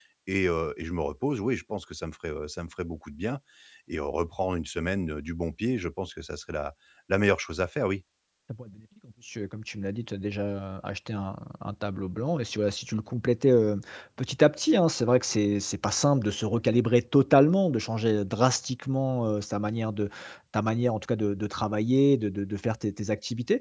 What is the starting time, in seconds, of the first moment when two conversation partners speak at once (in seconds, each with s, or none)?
none